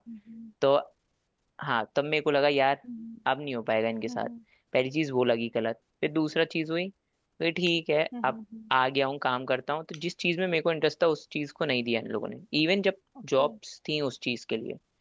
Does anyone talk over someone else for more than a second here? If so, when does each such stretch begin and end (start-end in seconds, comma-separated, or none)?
none